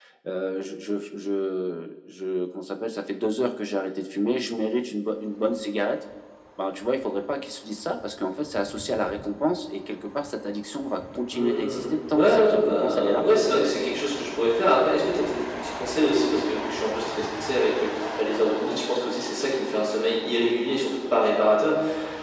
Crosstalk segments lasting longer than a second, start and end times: 11.3-13.2

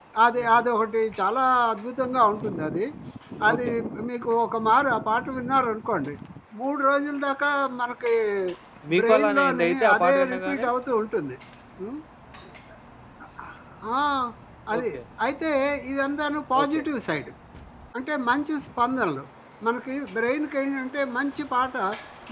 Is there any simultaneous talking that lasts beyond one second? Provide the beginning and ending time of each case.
9.0-10.7

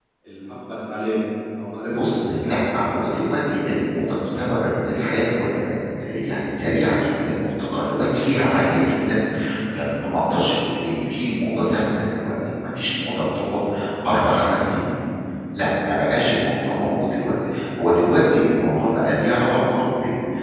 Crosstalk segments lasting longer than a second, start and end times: 1.9-3.1

